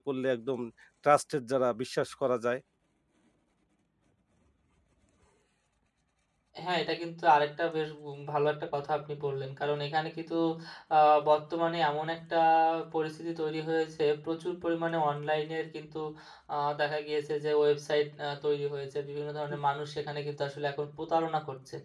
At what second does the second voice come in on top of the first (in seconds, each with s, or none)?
none